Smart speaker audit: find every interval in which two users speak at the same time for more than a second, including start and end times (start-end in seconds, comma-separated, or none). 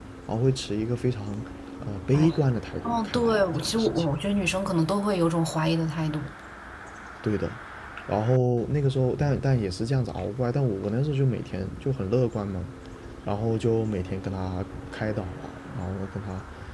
2.8-4.0